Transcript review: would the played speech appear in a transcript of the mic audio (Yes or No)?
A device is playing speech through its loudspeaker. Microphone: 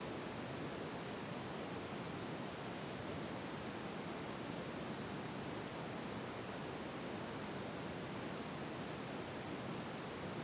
No